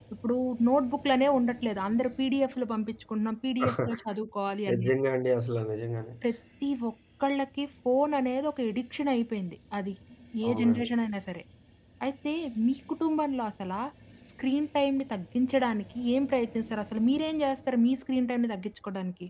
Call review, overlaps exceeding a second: none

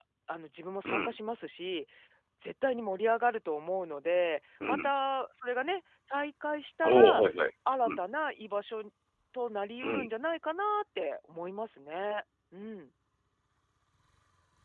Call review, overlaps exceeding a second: none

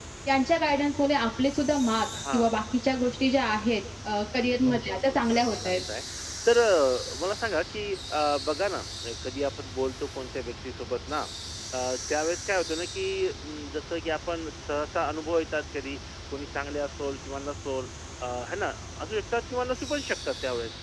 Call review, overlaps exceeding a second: present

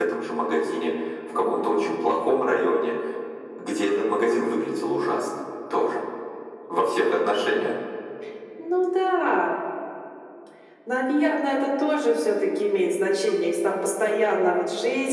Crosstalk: none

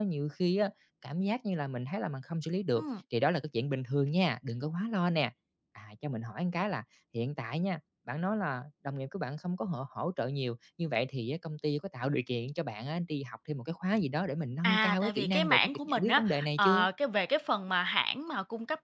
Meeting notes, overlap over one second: present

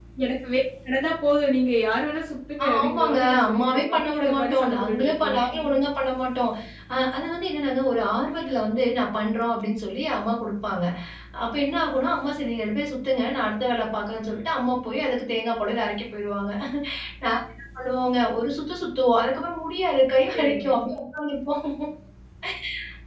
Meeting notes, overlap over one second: present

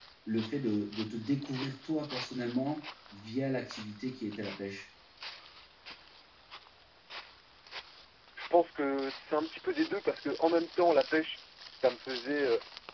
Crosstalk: none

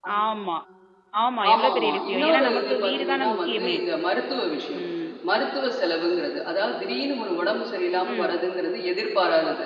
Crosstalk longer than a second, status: present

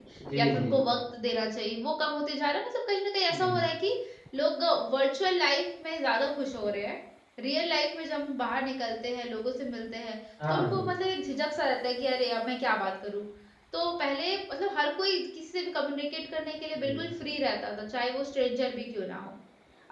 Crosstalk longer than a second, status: none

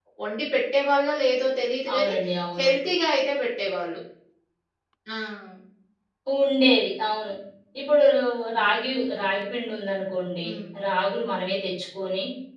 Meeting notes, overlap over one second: none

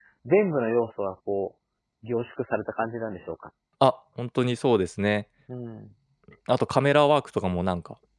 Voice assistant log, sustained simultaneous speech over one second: none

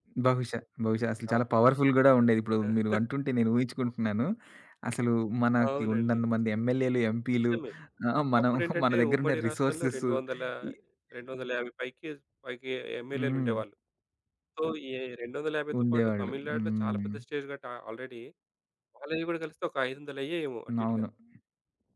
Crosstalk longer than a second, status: present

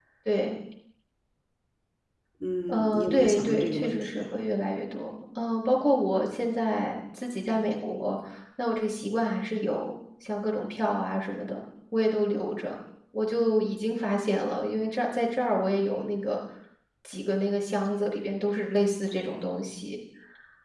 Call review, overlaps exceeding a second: present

